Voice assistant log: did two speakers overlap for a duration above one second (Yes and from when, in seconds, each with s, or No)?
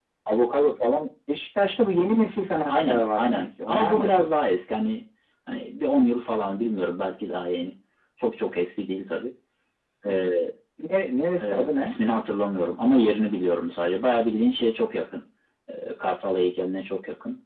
Yes, from 2.7 s